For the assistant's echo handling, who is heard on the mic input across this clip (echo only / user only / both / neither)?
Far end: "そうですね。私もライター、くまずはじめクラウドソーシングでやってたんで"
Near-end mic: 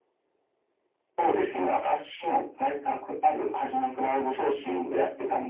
echo only